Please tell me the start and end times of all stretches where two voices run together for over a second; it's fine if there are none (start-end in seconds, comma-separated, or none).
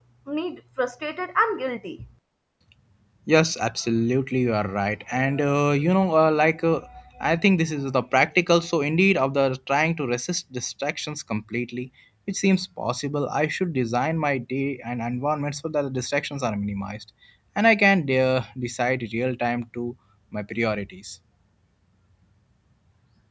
none